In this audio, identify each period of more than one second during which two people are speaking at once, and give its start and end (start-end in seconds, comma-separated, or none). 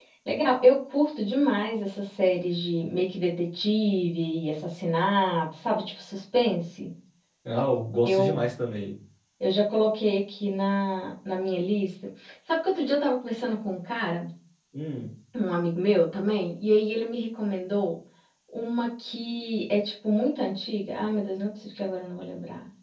none